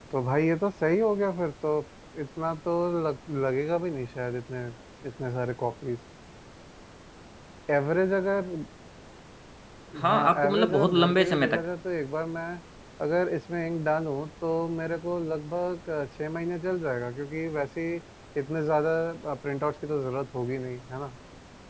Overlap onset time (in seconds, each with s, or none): 10.0 s